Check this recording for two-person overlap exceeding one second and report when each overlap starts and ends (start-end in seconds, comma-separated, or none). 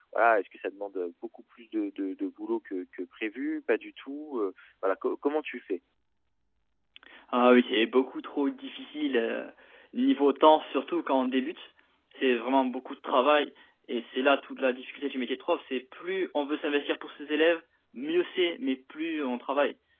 none